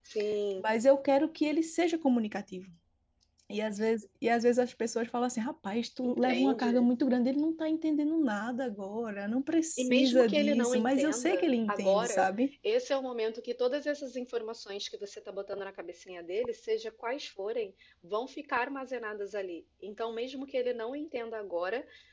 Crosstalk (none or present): present